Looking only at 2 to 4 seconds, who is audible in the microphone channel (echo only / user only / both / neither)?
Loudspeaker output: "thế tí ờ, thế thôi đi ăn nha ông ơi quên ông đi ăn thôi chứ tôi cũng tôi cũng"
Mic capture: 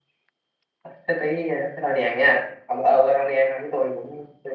echo only